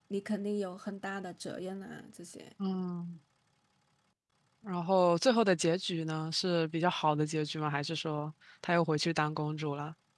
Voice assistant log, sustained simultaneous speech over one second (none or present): none